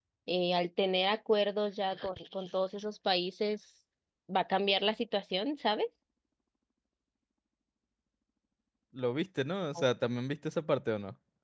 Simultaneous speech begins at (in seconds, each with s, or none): none